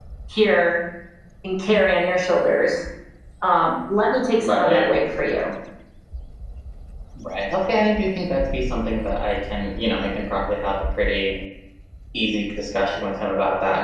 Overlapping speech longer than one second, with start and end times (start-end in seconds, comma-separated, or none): none